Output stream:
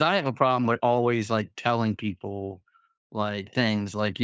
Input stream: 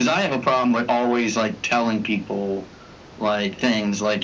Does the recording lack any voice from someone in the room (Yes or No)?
Yes